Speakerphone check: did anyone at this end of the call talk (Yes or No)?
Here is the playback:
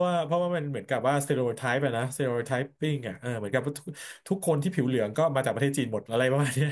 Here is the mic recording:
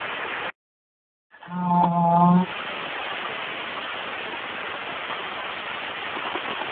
Yes